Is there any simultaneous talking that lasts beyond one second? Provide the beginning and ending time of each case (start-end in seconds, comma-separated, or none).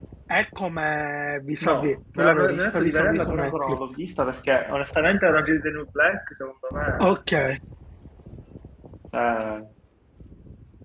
1.7-3.8